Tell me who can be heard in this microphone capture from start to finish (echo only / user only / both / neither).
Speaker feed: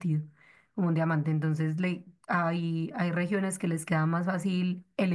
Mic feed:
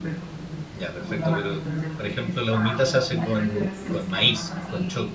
both